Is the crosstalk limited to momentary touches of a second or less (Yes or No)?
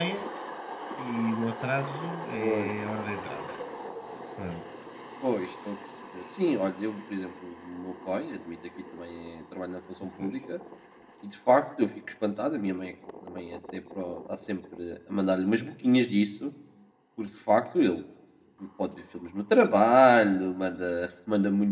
Yes